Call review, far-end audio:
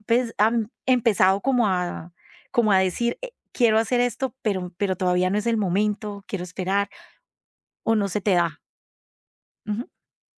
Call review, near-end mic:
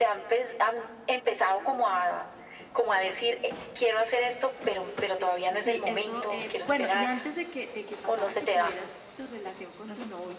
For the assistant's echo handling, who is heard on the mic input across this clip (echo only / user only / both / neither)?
both